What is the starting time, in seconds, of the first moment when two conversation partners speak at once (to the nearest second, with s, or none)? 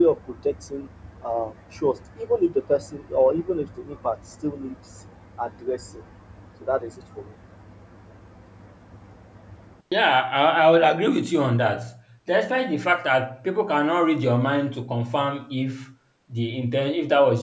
none